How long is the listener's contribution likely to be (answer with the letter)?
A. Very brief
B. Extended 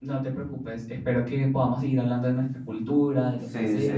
B